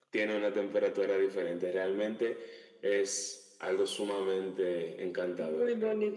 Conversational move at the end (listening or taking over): taking over